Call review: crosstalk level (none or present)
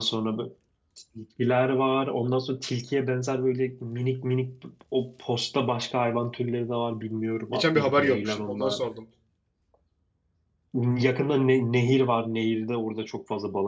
present